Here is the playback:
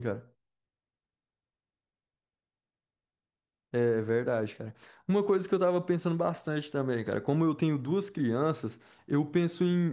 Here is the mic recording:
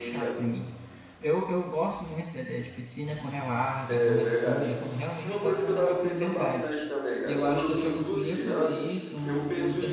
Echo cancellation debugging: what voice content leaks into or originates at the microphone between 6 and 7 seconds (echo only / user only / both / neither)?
both